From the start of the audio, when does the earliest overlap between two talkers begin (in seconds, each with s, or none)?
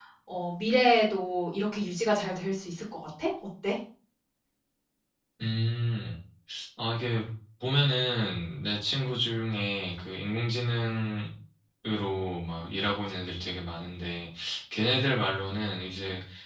none